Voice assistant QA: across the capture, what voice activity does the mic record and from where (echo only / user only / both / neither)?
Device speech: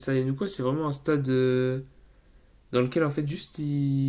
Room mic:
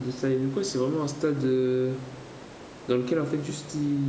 echo only